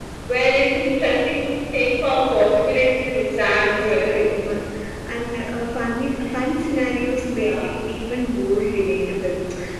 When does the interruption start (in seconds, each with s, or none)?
3.1 s